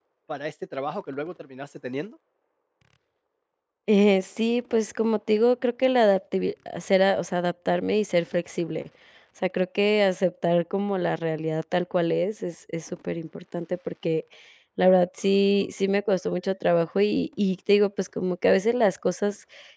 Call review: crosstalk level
none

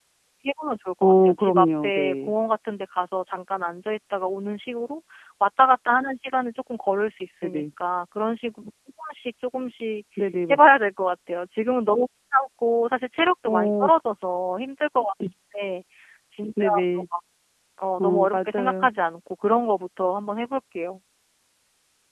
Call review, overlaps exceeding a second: present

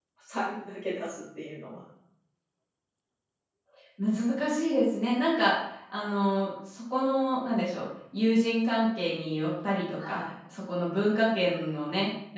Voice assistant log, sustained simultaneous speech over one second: none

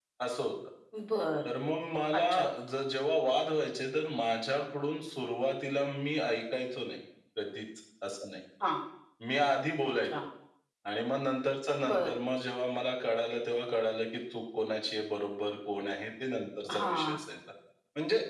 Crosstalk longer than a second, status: none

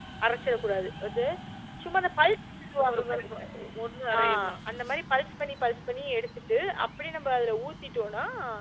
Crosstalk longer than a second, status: none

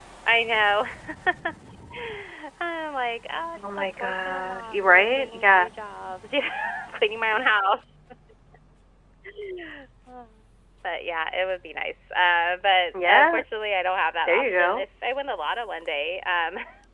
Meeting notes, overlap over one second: present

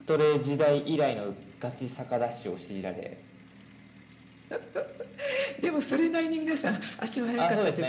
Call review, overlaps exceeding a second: none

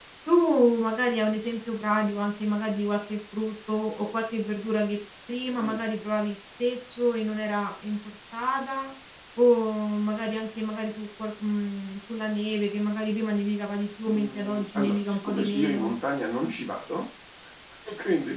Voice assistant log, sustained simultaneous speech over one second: present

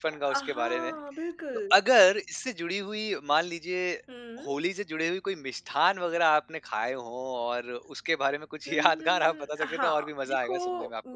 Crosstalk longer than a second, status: present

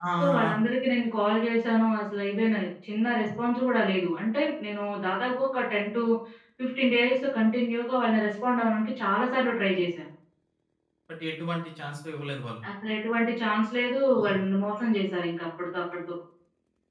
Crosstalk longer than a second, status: none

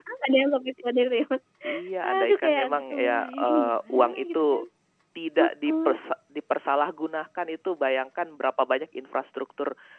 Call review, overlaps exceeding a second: present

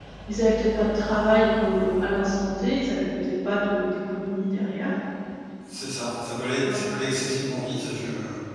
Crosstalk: none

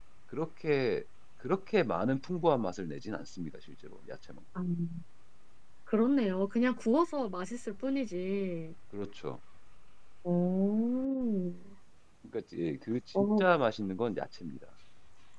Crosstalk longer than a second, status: none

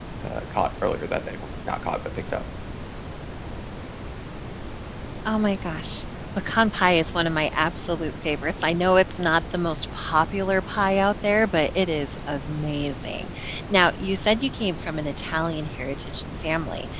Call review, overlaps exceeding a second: none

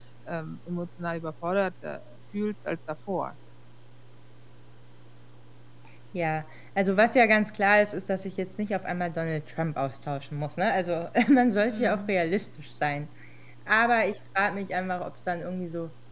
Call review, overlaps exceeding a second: none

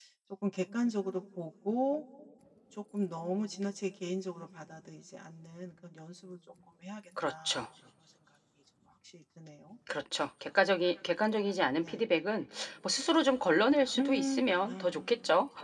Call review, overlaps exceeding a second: present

